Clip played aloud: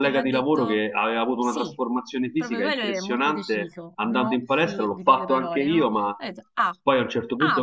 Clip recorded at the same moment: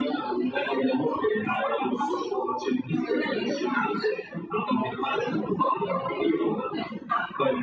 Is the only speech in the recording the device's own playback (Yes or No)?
Yes